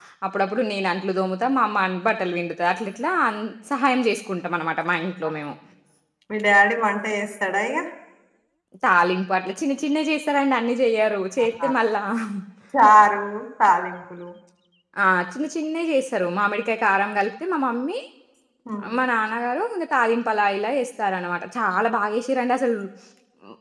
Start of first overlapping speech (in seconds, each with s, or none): none